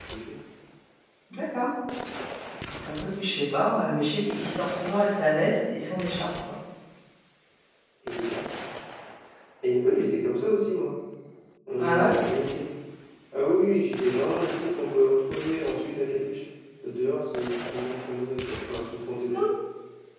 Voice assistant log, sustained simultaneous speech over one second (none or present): none